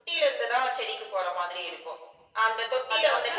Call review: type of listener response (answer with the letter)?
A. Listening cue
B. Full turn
A